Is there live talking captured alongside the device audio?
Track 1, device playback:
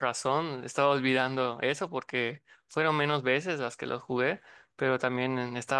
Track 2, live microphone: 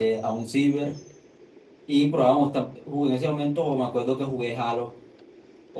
Yes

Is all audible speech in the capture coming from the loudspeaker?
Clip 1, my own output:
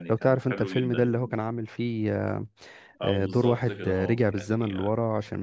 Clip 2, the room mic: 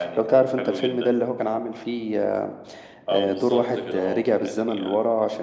Yes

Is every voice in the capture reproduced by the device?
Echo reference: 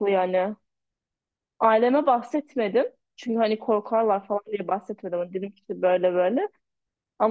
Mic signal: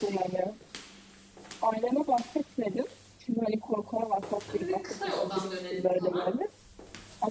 No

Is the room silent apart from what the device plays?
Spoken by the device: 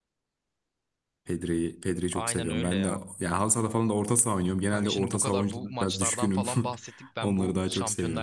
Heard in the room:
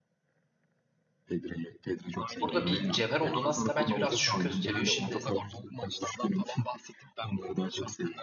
No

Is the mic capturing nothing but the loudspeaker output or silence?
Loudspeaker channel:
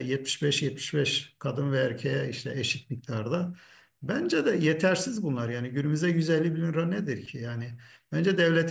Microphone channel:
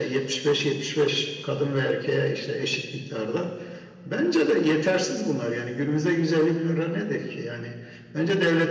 Yes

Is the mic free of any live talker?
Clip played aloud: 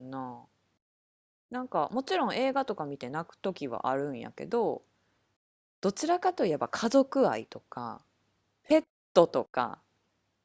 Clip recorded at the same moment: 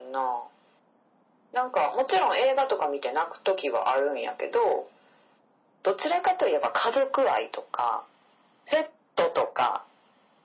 Yes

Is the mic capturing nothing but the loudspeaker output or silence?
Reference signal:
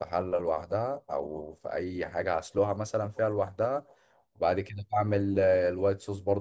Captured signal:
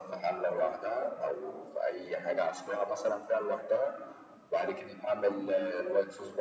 Yes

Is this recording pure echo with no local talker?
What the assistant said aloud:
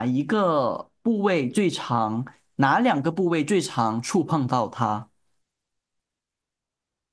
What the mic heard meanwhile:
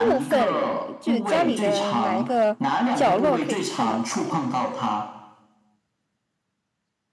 No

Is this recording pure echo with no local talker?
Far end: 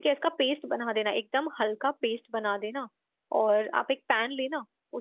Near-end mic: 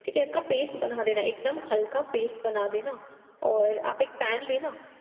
Yes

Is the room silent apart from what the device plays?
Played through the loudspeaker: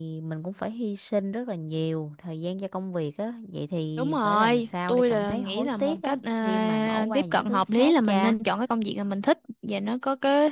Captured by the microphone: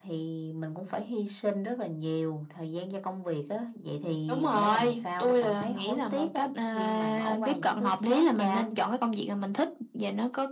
Yes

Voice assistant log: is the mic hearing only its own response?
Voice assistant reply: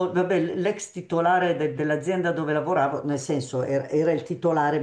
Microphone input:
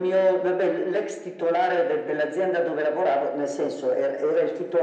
Yes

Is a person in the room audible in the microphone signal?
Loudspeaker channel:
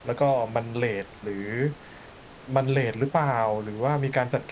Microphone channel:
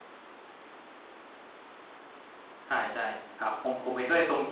Yes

